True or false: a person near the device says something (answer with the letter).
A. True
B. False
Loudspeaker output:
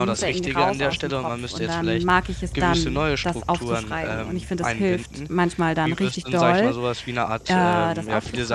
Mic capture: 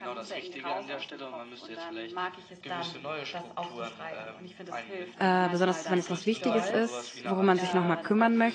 A